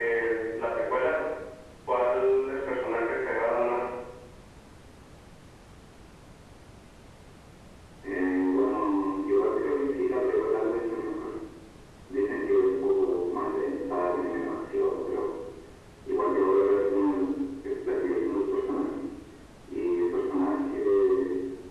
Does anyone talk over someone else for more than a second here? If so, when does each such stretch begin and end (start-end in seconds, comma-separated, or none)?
none